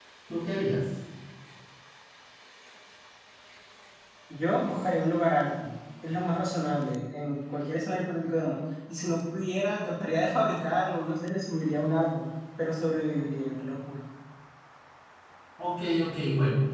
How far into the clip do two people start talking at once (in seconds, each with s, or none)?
none